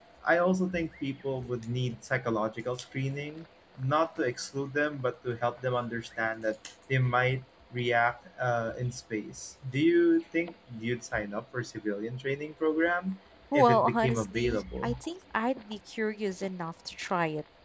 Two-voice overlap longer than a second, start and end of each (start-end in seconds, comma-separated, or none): 13.5-14.9